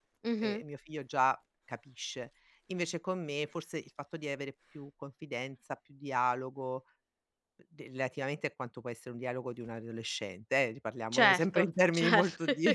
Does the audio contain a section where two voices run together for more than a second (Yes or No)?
Yes